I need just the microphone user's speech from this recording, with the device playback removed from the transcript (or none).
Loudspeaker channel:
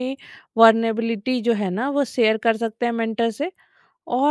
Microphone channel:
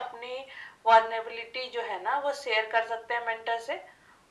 none